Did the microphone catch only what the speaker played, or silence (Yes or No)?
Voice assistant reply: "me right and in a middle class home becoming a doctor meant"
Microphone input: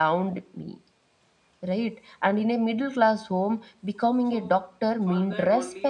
No